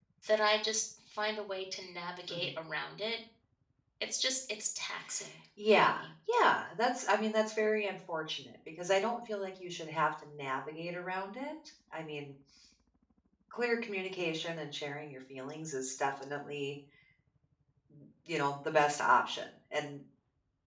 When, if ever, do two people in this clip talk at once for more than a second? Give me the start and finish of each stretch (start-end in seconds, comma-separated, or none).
none